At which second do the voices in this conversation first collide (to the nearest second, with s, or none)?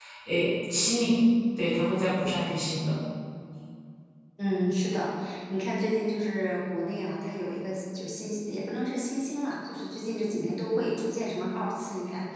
none